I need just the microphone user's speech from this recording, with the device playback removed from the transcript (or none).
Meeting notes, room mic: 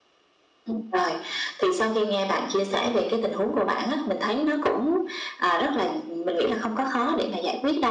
none